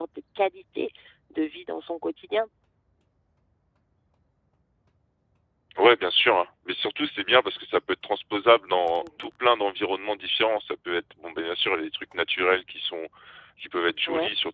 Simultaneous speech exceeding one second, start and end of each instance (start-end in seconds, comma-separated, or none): none